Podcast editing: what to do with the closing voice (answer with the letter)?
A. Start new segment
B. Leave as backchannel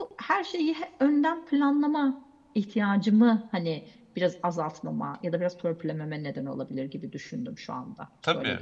A